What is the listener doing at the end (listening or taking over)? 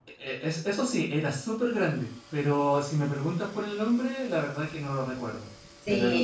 taking over